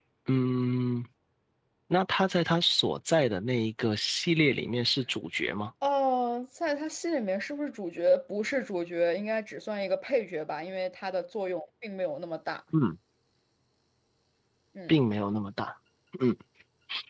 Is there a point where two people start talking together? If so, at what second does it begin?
none

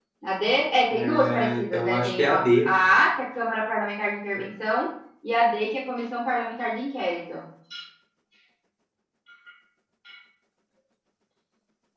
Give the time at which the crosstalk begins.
0.9 s

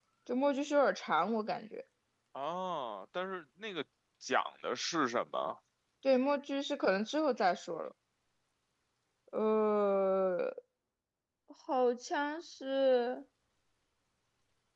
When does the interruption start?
none

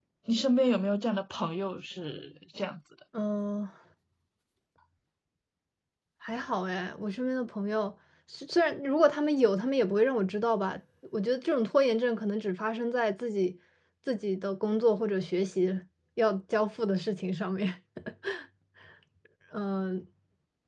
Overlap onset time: none

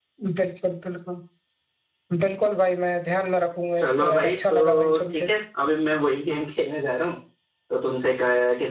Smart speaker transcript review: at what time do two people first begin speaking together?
3.7 s

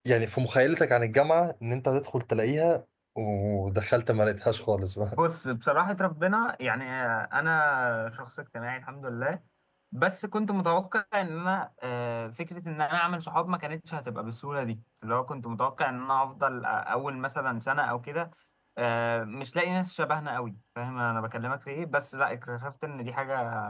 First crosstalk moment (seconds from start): none

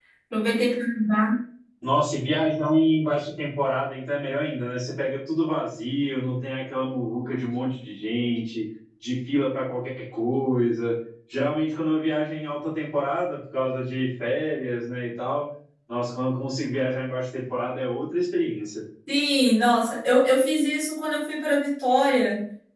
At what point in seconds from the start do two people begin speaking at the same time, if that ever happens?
none

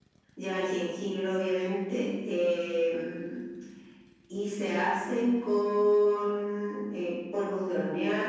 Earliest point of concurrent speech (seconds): none

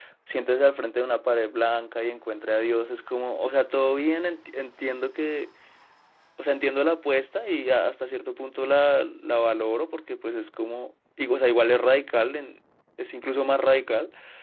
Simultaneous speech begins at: none

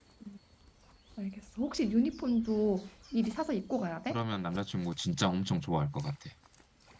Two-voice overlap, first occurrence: none

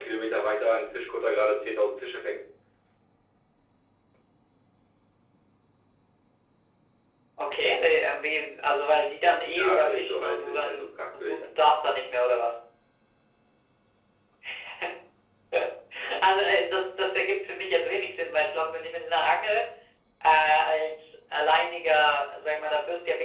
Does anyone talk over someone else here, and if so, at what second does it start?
9.6 s

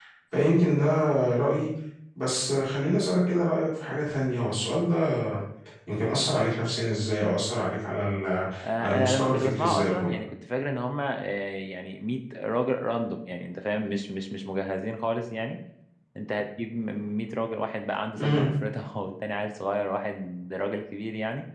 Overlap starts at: 8.8 s

